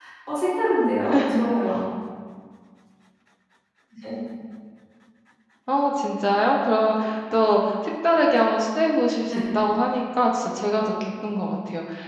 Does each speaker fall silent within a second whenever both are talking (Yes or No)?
Yes